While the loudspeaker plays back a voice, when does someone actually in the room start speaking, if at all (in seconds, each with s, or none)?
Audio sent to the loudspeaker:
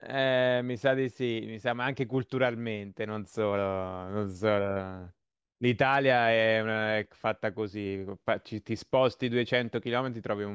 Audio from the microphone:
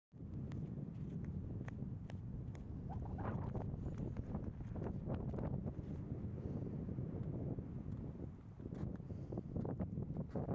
none